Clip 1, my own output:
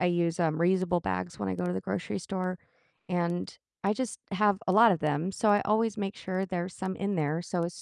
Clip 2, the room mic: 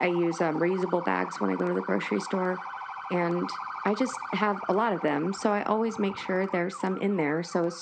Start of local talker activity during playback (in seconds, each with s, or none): none